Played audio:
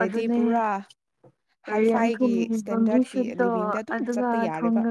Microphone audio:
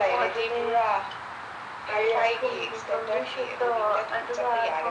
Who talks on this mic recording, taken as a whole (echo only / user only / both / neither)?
echo only